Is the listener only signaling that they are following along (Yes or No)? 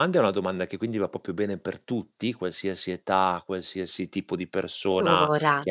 Yes